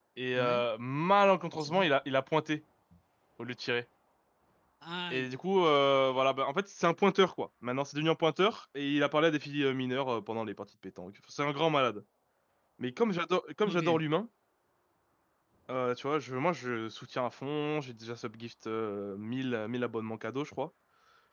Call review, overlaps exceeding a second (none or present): none